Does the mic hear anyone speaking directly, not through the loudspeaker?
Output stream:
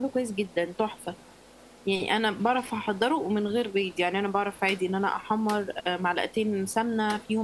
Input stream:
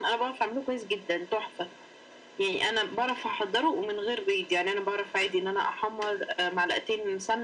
No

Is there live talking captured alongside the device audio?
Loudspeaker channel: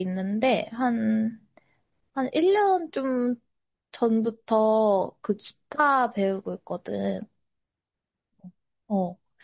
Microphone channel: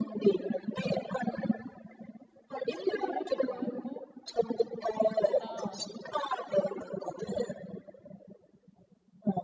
Yes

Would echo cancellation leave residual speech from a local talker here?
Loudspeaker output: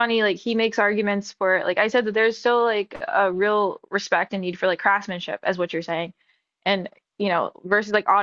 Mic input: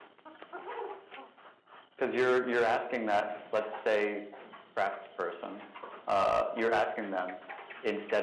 Yes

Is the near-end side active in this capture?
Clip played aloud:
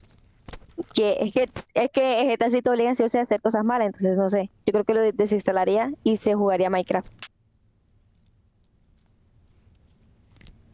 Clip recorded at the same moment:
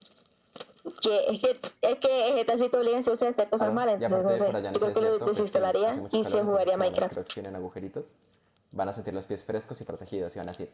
Yes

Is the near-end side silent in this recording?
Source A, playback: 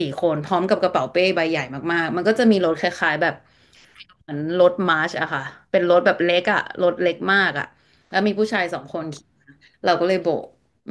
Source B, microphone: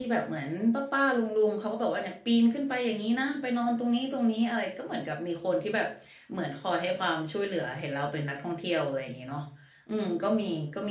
No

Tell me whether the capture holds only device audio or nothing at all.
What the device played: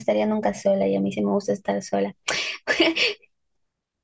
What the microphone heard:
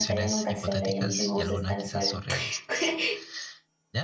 No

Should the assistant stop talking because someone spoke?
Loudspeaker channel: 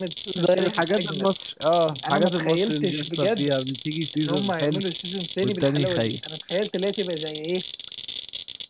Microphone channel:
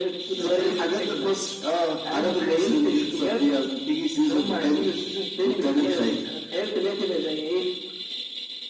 No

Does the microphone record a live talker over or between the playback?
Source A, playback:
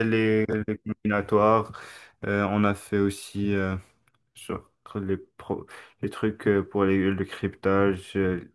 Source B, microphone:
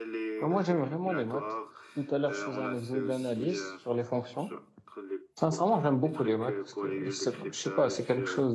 Yes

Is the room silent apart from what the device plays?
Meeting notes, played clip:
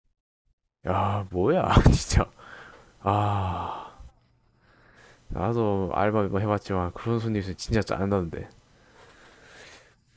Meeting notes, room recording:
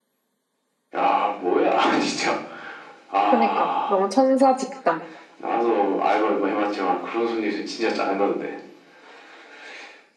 No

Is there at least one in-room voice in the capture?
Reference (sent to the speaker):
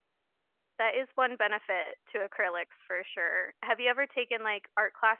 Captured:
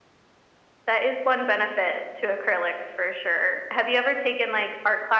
No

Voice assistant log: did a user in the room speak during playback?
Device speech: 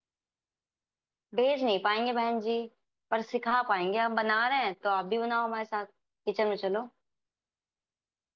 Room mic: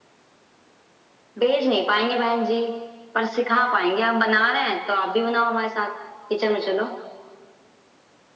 No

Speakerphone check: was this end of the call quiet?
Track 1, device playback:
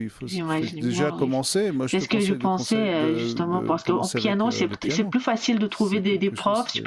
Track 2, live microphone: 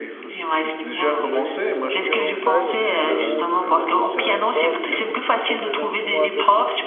No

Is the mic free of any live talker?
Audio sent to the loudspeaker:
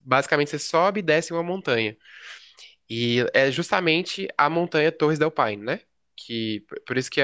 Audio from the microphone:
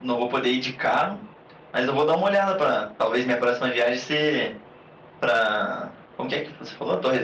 No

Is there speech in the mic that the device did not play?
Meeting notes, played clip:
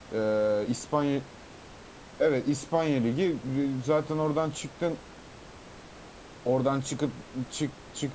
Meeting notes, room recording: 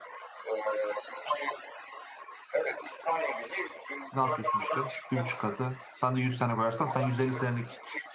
Yes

